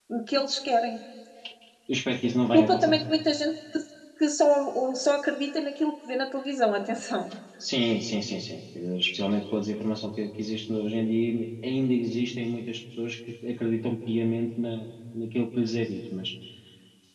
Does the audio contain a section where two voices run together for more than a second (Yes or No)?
No